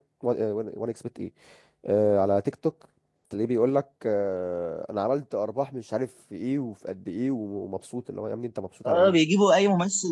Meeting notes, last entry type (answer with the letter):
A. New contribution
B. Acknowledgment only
A